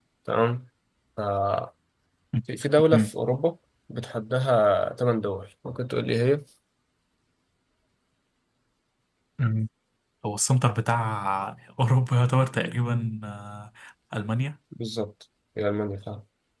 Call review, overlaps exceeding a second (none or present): none